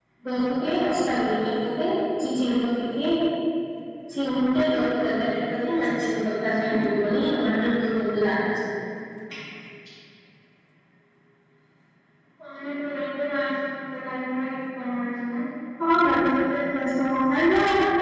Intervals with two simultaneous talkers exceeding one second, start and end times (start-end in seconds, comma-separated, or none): none